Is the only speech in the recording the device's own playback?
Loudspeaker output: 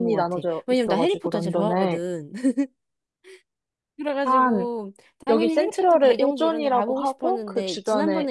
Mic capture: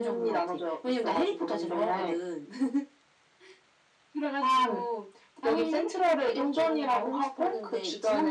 Yes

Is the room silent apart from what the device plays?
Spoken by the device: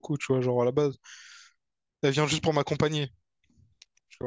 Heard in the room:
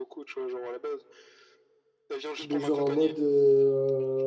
No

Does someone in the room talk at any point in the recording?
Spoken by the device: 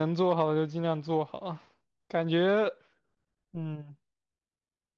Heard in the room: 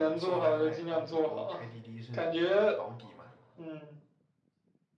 Yes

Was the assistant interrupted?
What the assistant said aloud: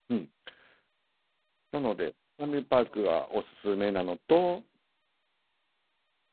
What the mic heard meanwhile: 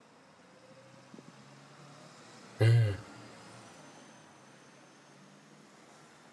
Yes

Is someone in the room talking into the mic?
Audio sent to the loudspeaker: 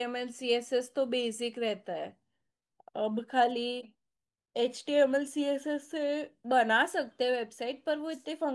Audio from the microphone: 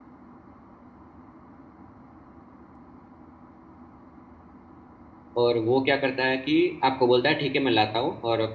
Yes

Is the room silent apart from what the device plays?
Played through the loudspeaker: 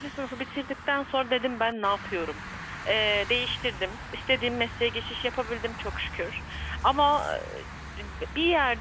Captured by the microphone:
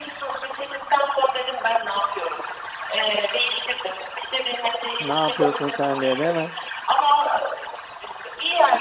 No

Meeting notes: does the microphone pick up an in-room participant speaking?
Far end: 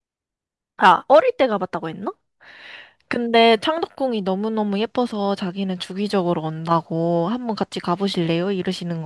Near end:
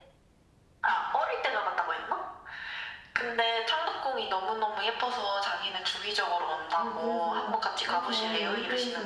Yes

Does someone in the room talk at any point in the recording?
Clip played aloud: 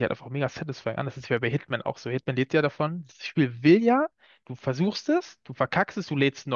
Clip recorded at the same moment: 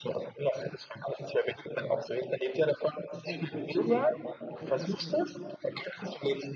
Yes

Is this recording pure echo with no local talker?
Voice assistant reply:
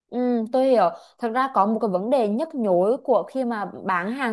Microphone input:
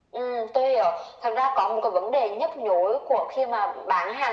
Yes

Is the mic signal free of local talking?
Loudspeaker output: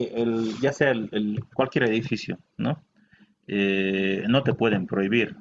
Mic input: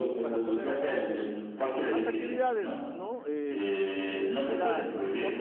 No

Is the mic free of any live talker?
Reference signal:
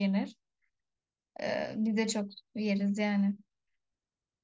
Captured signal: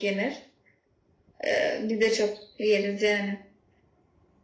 Yes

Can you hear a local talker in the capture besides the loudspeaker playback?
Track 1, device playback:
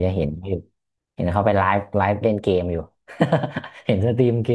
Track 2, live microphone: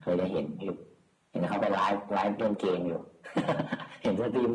No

